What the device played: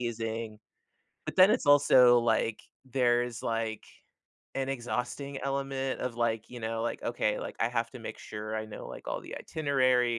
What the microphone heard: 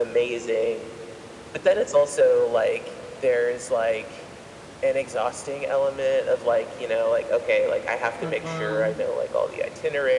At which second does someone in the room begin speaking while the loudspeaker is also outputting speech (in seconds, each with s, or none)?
8.2 s